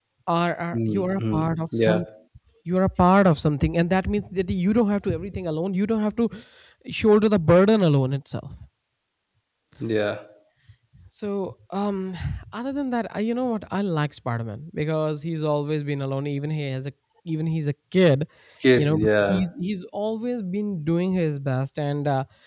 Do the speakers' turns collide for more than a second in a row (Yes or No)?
Yes